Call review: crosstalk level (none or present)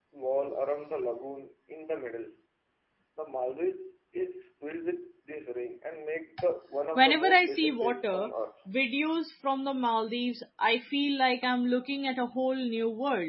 present